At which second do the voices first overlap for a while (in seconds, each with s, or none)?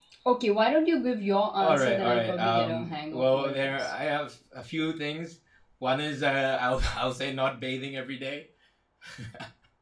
1.6 s